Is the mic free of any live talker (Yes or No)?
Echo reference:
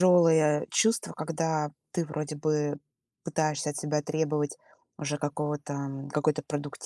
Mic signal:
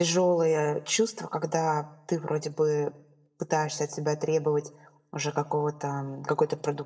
Yes